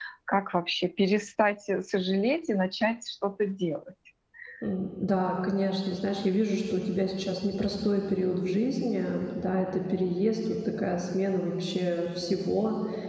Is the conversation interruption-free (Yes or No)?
Yes